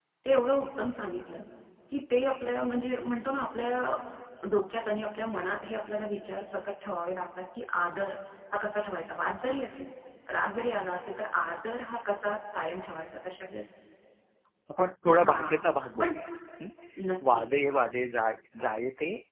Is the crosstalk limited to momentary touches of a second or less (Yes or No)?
Yes